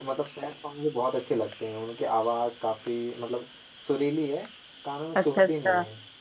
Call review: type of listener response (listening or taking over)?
taking over